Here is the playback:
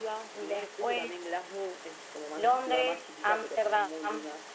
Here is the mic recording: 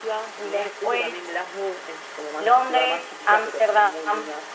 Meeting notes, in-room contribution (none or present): none